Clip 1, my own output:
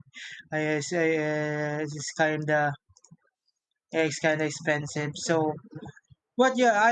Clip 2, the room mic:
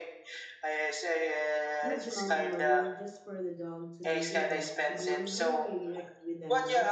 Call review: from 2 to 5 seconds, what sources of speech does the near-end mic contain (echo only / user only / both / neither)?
both